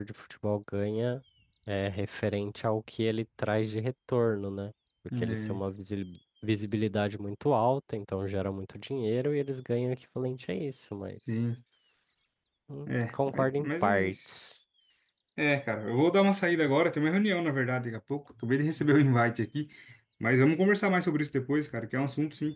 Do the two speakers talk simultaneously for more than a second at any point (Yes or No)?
Yes